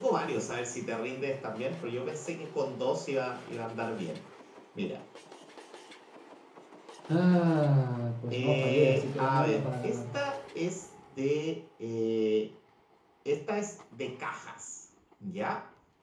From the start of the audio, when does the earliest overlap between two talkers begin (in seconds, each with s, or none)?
8.3 s